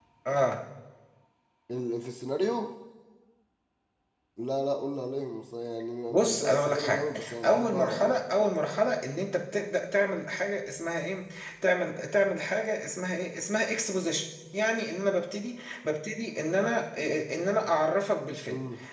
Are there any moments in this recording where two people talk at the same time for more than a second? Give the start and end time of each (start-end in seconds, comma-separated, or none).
6.1-8.2